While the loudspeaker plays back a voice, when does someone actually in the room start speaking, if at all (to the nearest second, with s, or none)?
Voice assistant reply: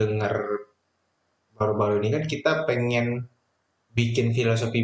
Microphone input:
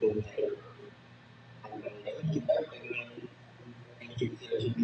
none